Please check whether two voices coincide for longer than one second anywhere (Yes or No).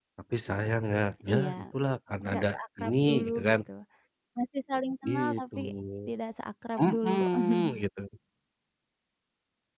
Yes